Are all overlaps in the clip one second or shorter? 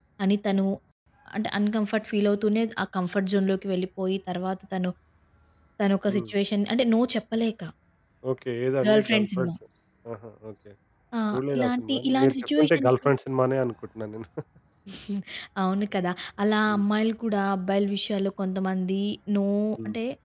No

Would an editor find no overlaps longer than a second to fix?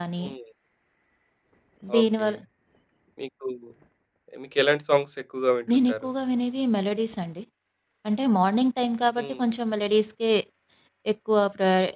Yes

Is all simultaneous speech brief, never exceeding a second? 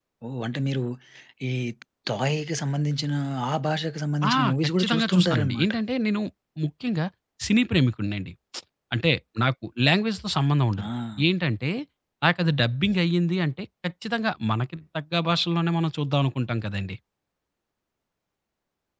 No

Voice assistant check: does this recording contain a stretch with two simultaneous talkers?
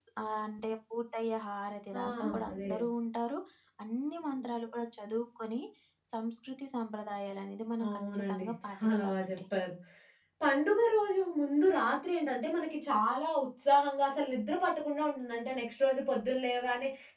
Yes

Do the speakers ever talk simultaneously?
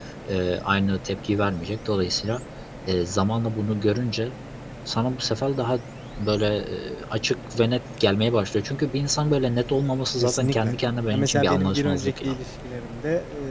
Yes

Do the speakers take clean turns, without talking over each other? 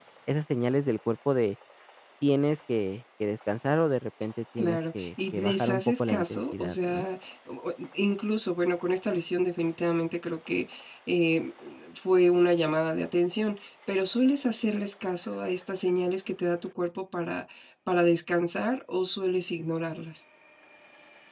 No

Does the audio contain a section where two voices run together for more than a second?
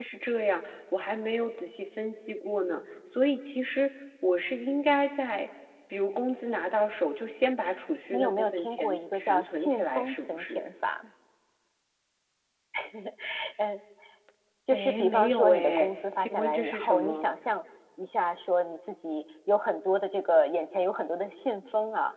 Yes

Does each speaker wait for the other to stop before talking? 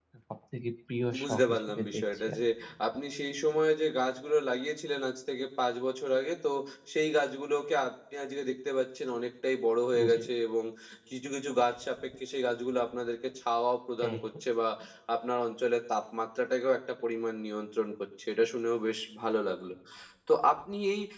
No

